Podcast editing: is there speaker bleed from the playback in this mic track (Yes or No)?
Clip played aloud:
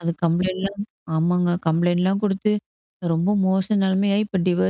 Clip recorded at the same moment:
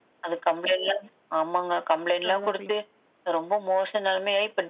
Yes